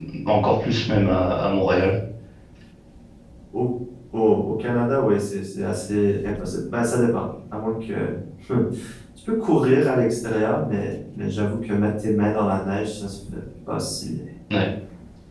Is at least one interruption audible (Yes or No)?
No